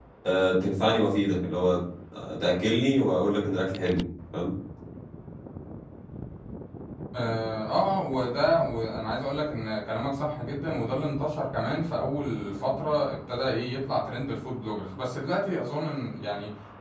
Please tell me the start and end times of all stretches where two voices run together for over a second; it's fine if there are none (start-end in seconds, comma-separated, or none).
none